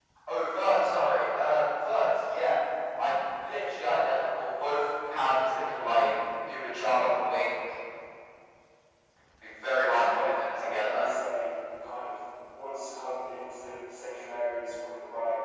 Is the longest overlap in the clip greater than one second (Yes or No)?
Yes